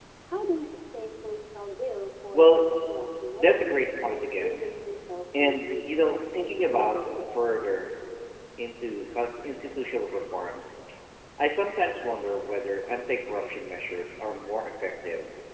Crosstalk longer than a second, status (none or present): present